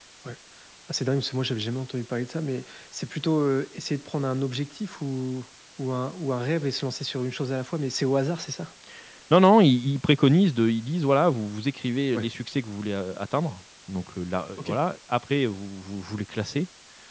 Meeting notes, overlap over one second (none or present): none